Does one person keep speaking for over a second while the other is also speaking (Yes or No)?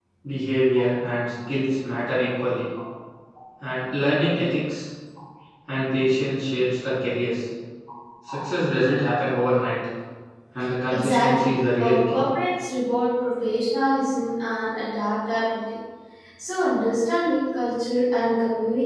Yes